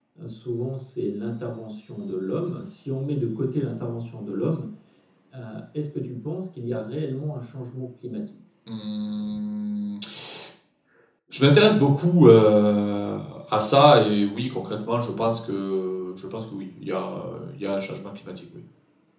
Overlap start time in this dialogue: none

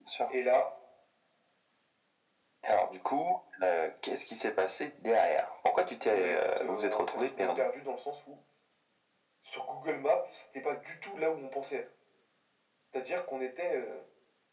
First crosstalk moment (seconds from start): 6.1 s

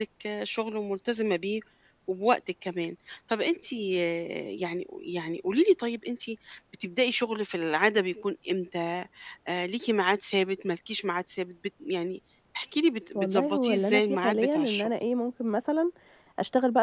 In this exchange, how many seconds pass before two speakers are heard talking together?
13.2 s

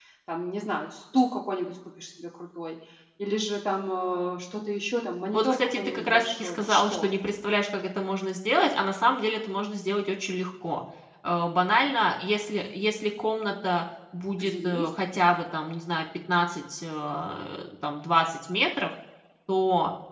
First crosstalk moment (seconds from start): 5.3 s

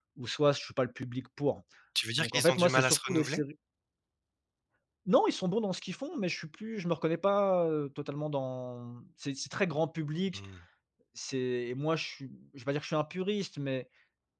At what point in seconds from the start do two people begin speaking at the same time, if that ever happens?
2.2 s

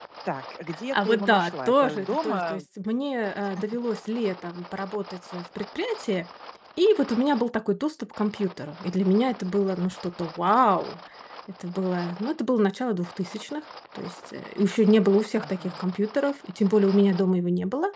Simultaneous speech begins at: 0.9 s

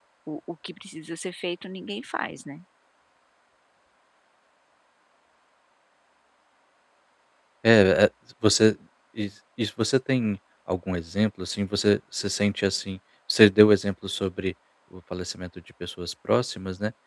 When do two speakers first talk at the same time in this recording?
none

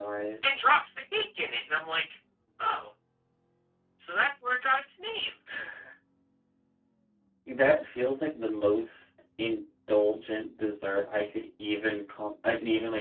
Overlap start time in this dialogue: none

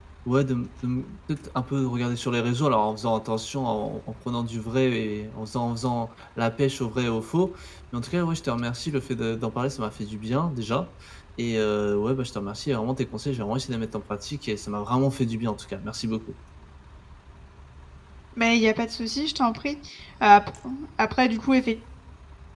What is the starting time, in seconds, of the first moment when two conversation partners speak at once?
none

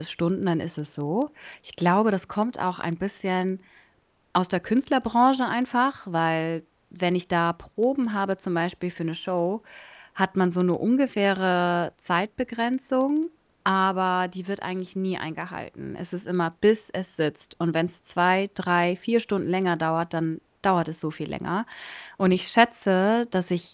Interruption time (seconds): none

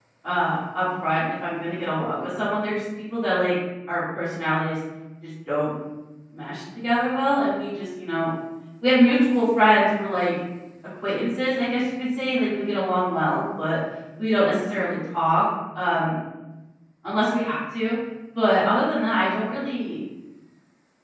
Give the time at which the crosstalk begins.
none

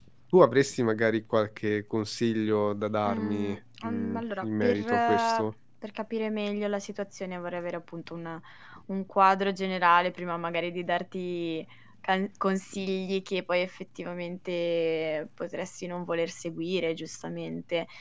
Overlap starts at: 3.0 s

